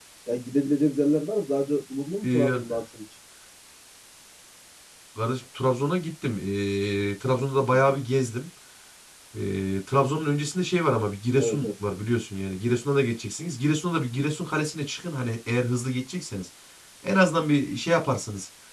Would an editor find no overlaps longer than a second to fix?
Yes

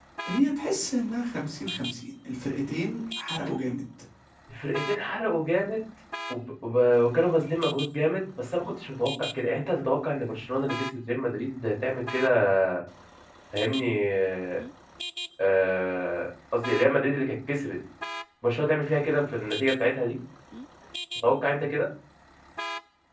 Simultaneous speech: No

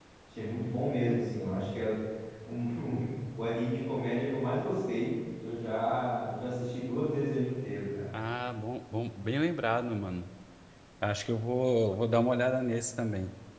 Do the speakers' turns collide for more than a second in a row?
No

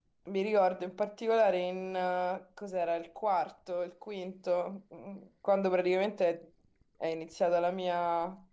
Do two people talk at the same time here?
No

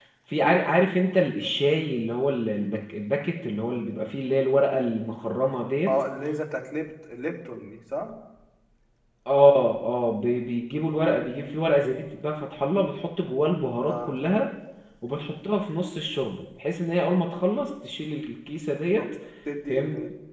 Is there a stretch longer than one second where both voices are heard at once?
No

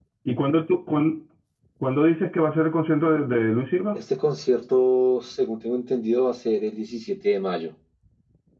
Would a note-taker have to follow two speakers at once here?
No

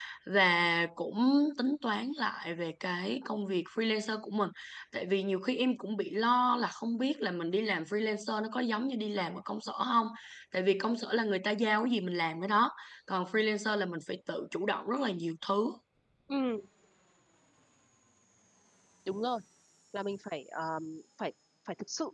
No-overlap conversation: Yes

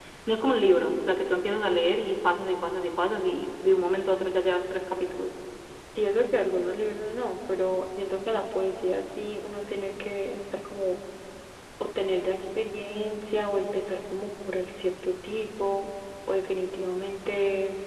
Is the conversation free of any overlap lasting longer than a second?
Yes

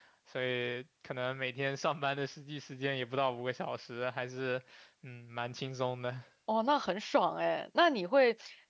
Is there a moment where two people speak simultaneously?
No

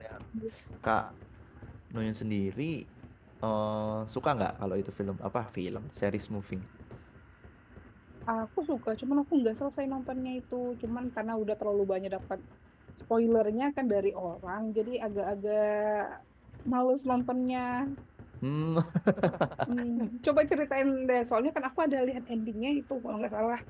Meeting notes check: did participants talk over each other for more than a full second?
No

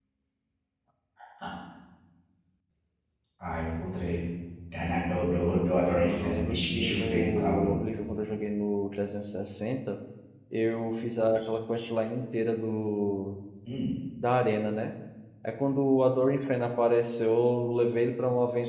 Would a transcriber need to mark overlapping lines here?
Yes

